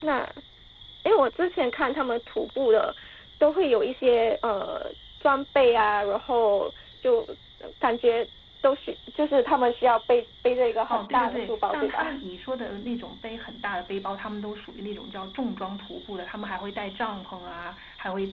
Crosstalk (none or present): present